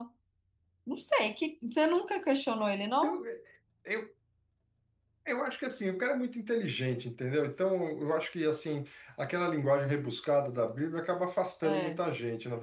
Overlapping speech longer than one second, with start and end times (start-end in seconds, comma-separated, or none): none